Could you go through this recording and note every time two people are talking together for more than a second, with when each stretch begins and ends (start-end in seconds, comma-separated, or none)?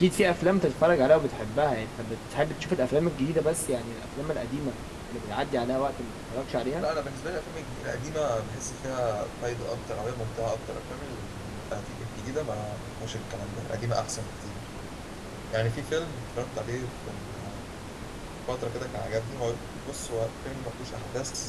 none